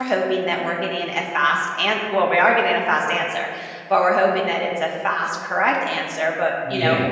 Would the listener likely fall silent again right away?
Yes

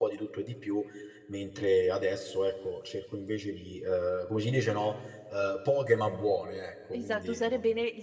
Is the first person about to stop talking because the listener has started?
Yes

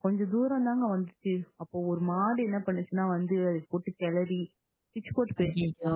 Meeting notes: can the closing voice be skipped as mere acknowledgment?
Yes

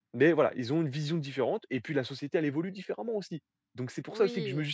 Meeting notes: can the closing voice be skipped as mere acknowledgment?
Yes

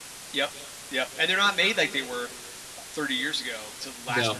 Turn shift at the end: No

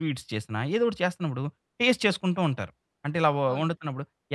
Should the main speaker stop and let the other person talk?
No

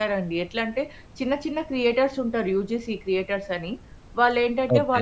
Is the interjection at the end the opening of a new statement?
No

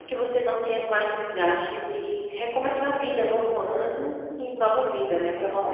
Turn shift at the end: Yes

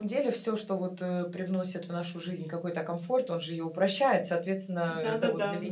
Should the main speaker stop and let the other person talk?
Yes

